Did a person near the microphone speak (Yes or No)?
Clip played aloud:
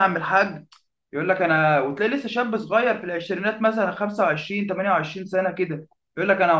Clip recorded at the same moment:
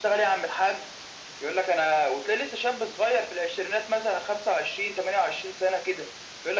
No